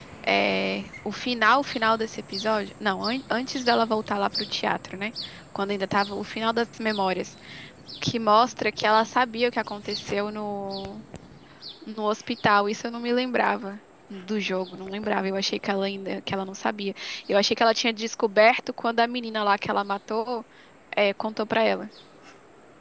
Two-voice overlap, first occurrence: none

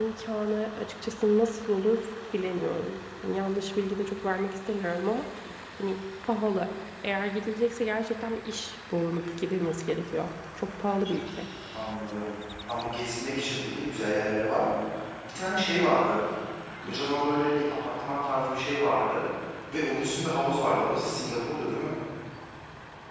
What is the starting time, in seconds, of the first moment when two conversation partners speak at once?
none

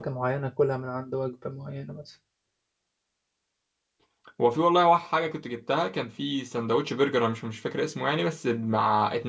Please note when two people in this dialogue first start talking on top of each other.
none

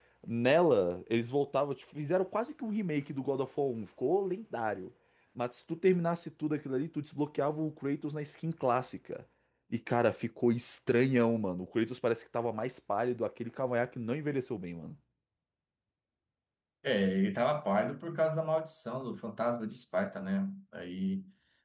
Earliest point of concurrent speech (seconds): none

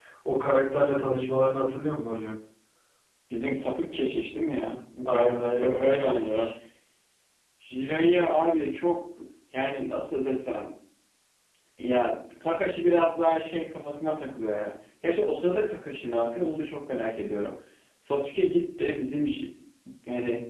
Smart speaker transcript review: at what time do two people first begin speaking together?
5 s

